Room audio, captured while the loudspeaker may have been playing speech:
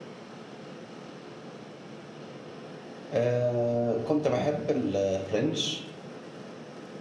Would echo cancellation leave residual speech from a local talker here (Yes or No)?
Yes